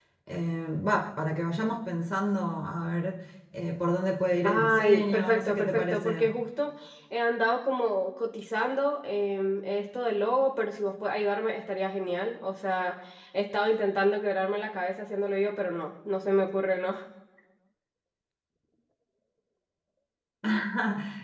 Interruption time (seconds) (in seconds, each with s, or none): 4.4 s